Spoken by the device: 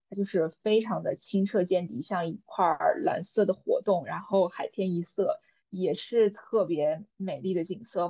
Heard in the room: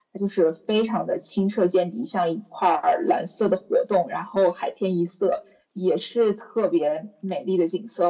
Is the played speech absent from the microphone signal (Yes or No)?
No